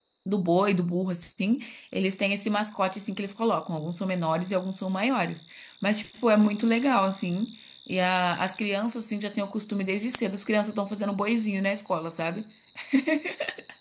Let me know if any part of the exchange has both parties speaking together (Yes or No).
No